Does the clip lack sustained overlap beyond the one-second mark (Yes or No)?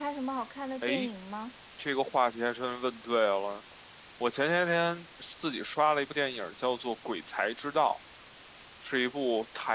Yes